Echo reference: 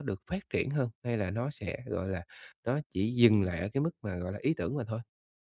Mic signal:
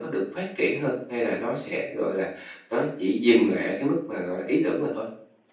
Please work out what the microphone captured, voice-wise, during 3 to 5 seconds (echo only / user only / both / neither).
echo only